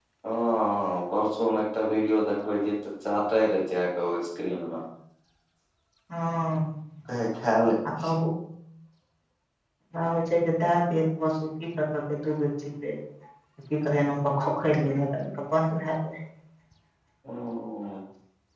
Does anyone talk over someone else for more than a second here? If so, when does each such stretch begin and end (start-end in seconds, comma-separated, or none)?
none